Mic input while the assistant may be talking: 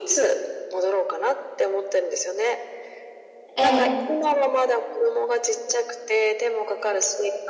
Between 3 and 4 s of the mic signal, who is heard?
both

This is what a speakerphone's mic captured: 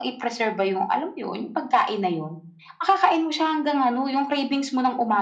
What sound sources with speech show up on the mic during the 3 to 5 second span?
echo only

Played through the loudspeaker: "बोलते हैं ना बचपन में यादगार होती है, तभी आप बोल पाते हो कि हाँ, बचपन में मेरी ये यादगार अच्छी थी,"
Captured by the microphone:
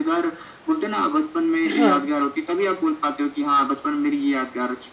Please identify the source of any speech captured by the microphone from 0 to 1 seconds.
echo only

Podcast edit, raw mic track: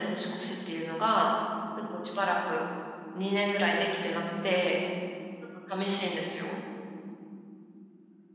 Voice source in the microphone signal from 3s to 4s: echo only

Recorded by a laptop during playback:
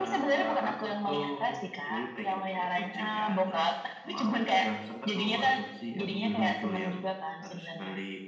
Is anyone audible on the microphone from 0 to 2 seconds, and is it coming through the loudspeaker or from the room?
echo only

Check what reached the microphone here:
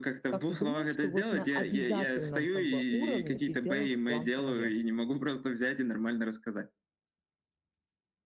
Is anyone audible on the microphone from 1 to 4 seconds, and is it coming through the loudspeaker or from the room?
both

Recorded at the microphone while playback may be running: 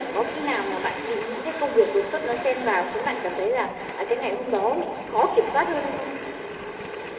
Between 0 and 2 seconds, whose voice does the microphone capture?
echo only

